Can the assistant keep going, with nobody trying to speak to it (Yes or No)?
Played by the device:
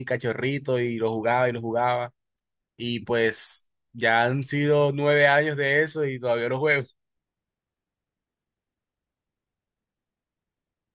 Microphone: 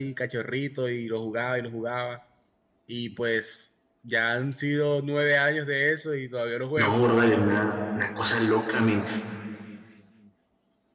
No